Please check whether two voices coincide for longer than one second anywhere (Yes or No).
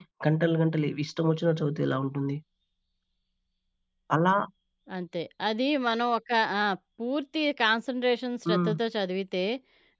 No